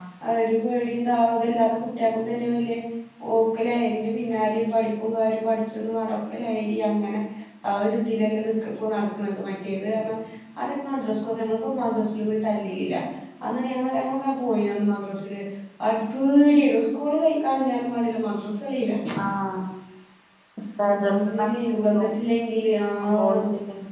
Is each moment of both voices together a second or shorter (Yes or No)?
Yes